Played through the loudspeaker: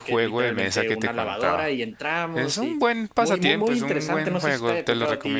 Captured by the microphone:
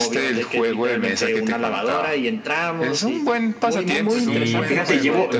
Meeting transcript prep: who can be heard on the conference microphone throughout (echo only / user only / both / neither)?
both